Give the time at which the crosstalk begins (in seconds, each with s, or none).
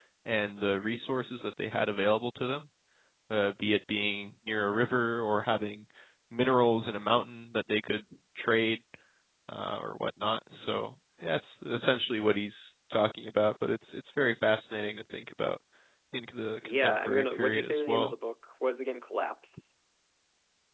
16.6 s